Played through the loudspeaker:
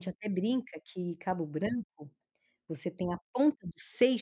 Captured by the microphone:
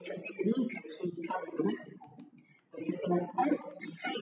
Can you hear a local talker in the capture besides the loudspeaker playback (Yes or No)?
No